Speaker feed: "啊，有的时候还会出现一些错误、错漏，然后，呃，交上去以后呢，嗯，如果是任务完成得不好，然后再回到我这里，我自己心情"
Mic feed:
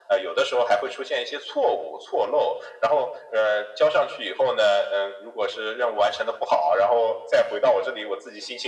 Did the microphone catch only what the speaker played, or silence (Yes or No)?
Yes